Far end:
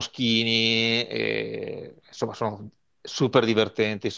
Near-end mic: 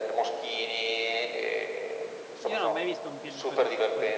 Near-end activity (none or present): present